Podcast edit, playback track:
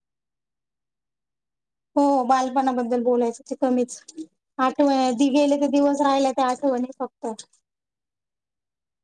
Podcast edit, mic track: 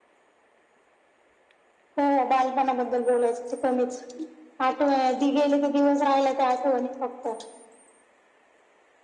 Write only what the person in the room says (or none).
none